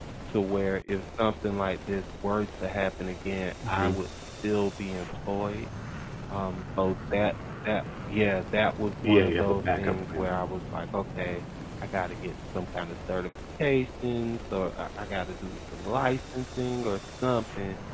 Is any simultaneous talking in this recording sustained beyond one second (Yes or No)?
Yes